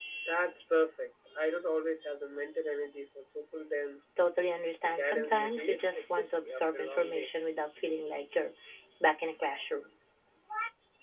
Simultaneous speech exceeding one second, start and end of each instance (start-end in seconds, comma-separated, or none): 5.0-7.3